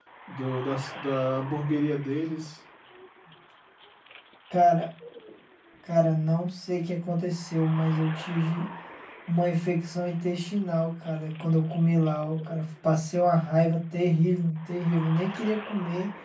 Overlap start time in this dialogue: none

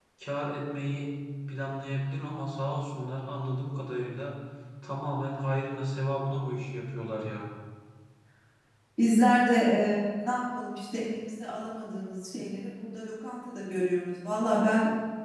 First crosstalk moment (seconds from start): none

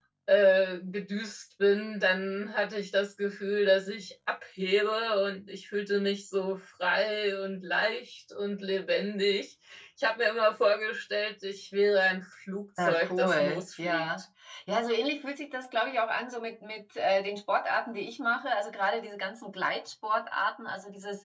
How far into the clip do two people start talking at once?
12.8 s

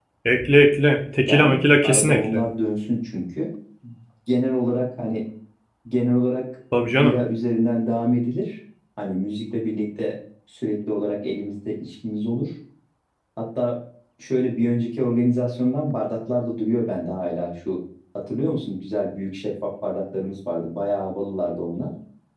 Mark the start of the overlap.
1.2 s

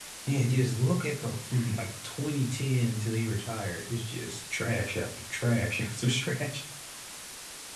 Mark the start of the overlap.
none

